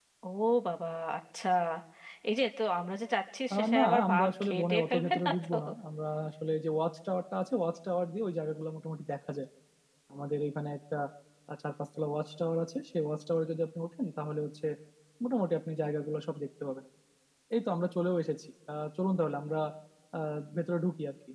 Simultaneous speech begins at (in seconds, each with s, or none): 3.5 s